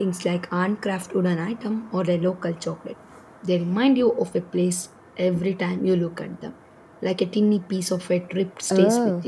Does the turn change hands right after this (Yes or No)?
Yes